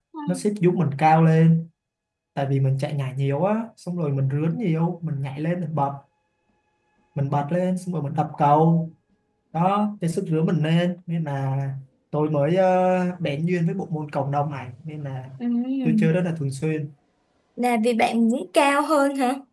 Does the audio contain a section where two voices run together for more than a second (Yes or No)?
No